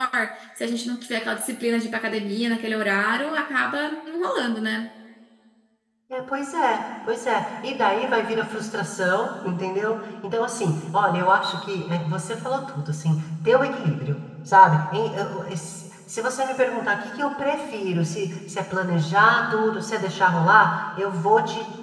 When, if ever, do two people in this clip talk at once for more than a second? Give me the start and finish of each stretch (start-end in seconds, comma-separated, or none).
none